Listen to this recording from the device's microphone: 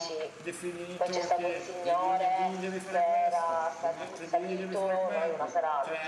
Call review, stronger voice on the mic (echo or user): echo